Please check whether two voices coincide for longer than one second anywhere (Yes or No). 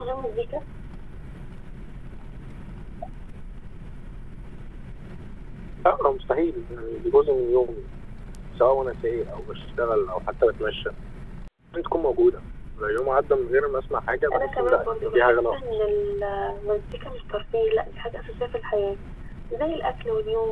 Yes